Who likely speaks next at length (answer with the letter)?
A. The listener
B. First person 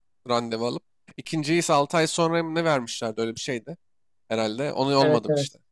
A